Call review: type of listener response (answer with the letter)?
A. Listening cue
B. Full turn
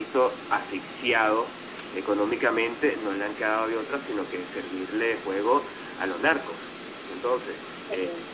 A